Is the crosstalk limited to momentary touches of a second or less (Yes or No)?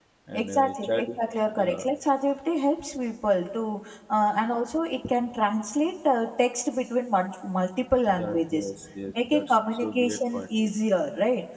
No